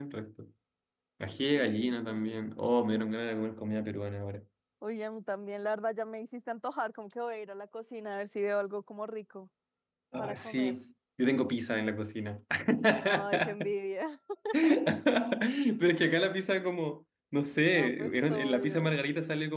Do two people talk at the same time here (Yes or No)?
Yes